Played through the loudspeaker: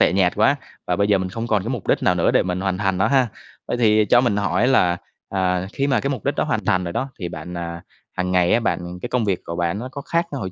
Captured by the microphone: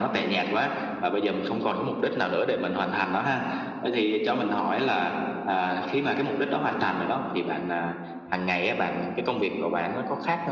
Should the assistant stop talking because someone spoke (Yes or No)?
No